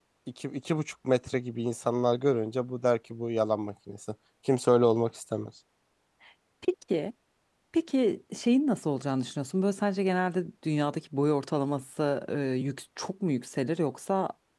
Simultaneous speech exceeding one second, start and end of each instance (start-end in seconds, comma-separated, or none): none